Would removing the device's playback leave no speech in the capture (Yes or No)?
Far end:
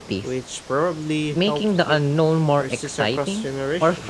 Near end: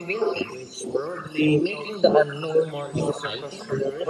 Yes